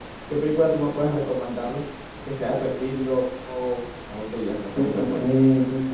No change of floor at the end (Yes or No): No